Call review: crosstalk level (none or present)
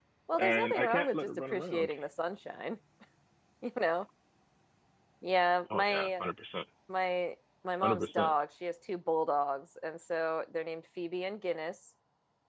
present